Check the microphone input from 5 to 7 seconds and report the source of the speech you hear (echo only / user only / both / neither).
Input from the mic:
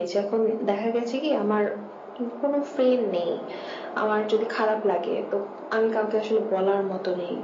echo only